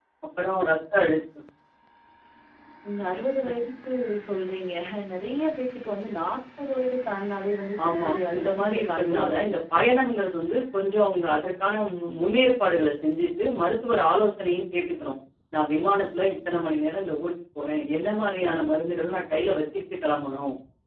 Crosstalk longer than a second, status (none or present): present